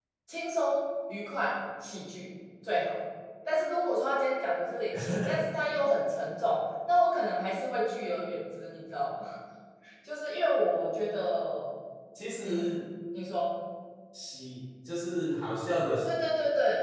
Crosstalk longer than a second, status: none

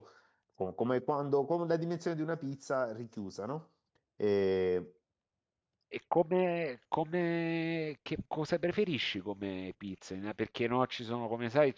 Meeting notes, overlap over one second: none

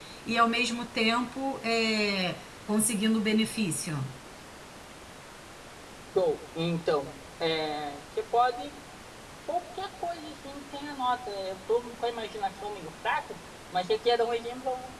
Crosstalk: none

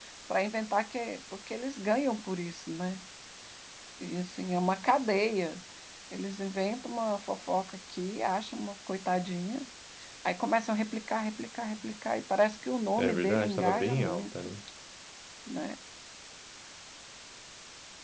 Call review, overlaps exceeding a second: present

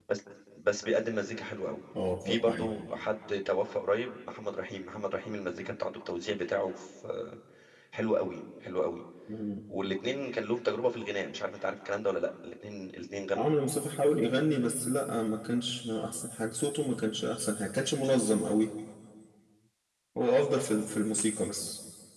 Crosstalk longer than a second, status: none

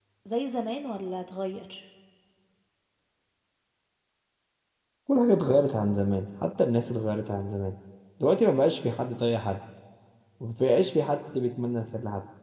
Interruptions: none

